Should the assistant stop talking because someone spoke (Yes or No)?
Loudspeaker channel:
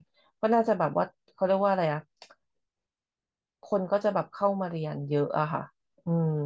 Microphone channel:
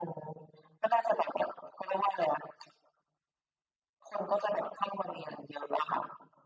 No